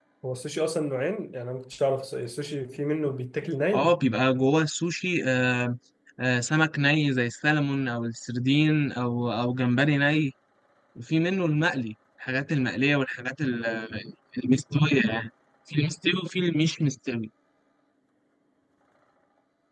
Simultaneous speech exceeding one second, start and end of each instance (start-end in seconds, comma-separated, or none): none